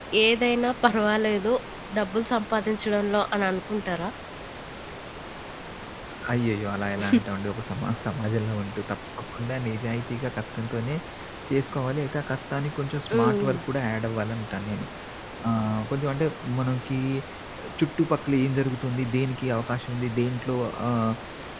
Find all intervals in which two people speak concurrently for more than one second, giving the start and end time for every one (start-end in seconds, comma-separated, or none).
none